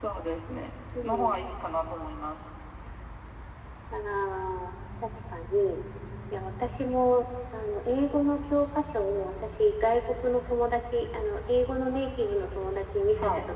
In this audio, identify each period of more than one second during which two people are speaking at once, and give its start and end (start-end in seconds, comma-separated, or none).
none